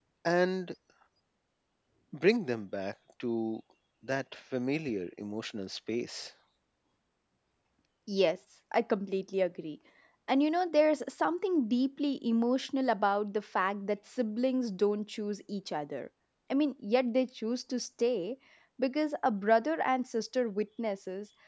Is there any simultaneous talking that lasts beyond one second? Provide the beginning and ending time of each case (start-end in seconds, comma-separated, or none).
none